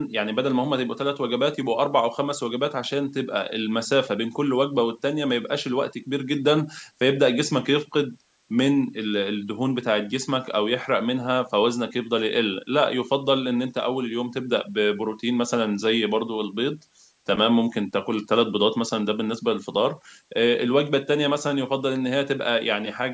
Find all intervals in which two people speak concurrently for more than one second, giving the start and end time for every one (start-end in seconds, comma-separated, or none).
none